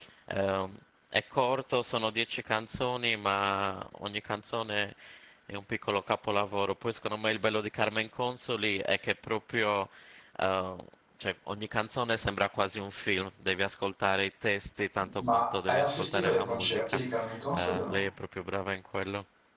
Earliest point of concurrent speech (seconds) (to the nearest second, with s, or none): 15 s